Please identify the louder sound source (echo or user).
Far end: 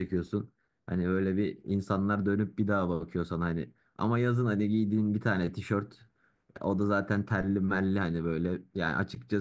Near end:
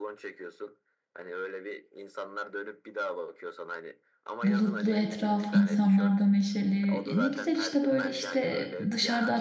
user